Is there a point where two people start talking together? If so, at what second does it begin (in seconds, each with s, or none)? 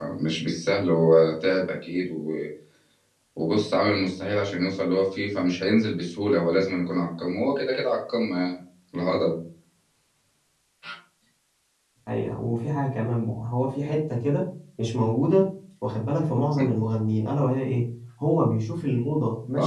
none